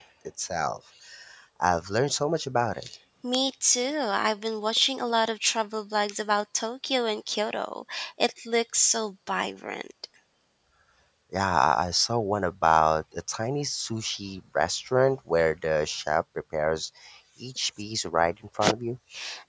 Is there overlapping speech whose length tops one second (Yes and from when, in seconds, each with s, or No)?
No